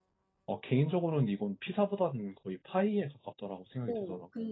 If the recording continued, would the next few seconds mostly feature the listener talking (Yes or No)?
Yes